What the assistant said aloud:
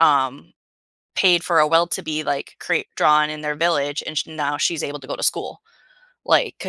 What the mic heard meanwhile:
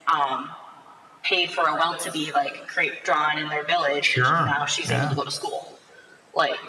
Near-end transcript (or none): Sure. Yeah.